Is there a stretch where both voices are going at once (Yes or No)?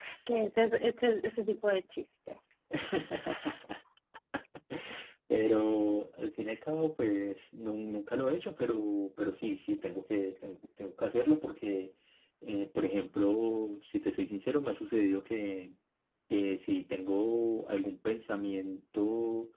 No